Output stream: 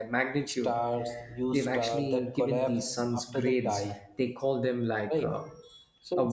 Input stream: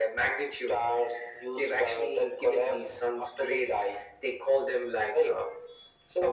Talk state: echo only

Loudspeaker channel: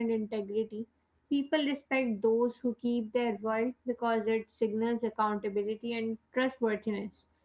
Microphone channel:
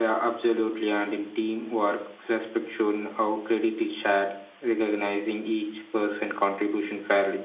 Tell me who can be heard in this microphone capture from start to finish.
user only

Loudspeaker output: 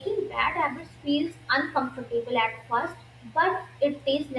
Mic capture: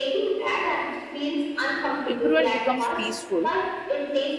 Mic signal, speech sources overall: both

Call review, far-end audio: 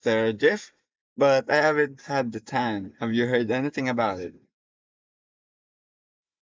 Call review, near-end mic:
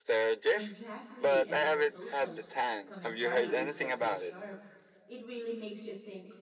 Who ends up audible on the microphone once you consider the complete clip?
both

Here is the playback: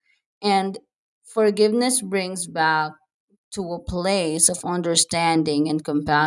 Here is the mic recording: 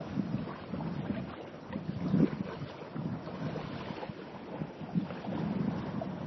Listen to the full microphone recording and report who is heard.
neither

